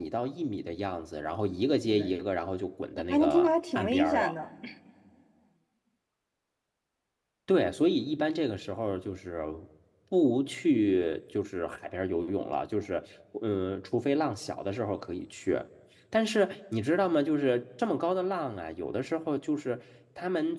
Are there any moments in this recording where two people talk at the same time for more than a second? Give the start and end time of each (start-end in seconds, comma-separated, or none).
3.1-4.3